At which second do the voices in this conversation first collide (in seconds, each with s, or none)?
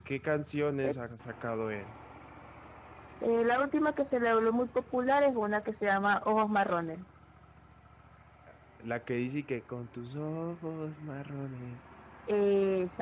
none